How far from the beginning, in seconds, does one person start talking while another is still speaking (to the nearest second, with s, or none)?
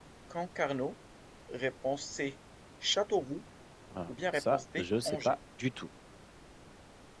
4 s